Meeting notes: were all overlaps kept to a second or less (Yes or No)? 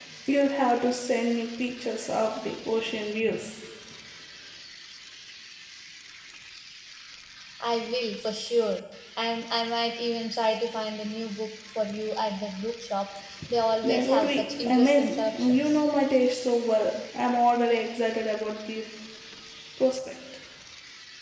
No